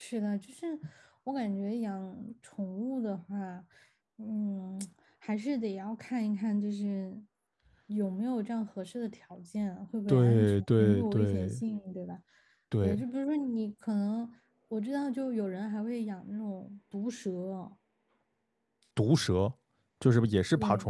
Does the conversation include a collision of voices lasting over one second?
Yes, from 10.1 s

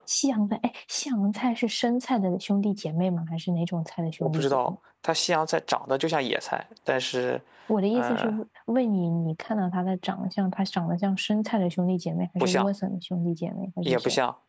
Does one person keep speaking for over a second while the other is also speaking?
No

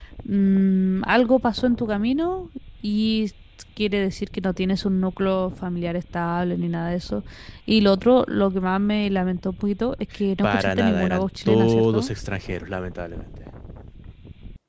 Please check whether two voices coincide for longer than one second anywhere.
Yes, from 10.4 s

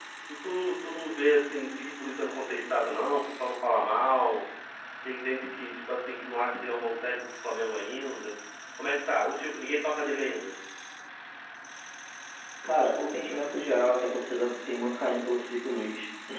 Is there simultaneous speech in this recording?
No

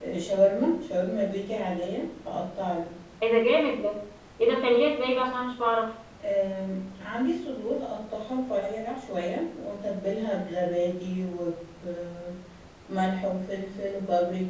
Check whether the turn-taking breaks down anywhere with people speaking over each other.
No

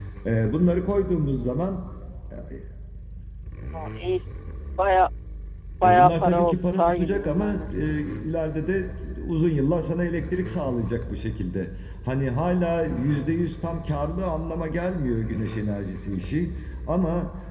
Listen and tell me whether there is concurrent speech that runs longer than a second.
Yes, from 5.8 s

